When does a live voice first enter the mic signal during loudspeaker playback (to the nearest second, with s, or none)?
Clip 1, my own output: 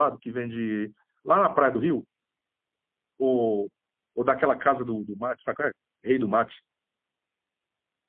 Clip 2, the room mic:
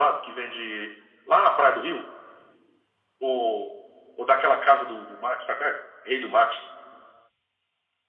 none